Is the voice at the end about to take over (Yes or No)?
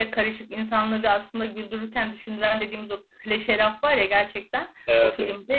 No